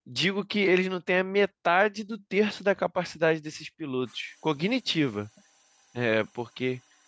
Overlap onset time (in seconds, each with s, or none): none